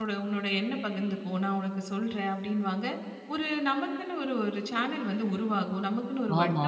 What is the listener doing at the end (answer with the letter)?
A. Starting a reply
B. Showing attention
B